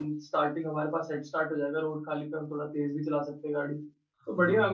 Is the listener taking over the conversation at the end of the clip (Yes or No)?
Yes